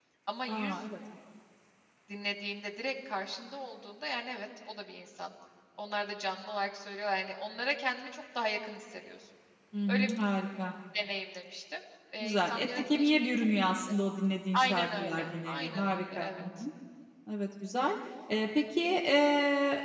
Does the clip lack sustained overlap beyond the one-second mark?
No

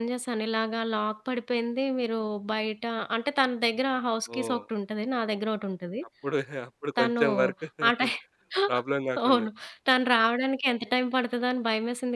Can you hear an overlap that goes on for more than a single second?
No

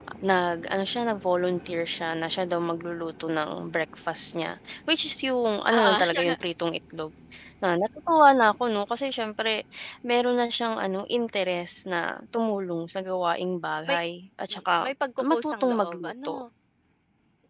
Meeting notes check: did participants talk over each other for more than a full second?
Yes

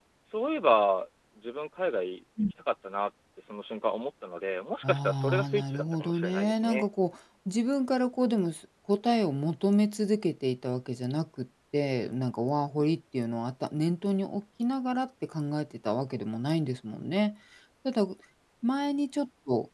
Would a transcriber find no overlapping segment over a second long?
No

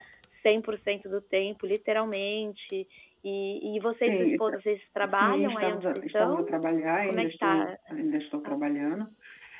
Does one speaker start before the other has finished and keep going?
Yes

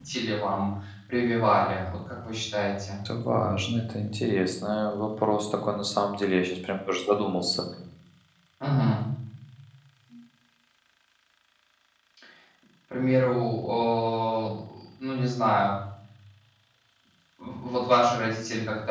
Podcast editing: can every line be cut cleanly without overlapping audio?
Yes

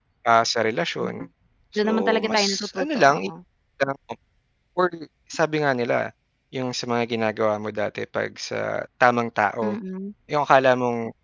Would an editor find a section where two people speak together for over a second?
Yes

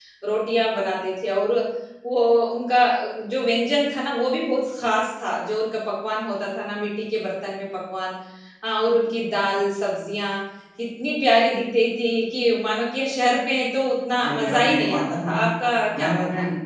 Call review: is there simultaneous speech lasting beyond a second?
Yes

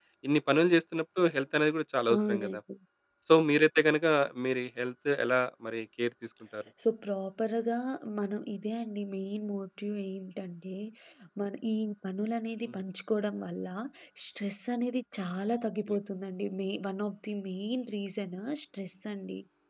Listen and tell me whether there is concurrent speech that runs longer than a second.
No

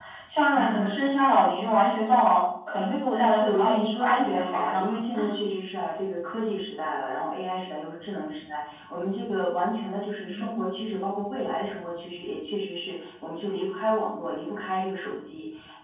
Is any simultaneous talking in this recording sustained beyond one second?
Yes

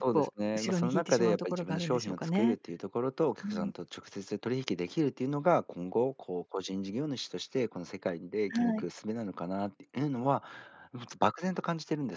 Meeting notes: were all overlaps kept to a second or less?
No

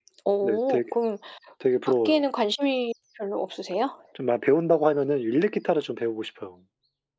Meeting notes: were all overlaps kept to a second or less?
Yes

